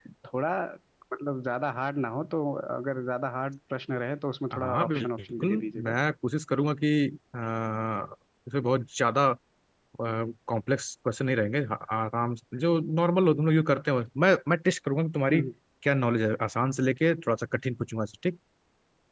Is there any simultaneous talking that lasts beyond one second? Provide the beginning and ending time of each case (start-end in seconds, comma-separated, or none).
4.5-6.0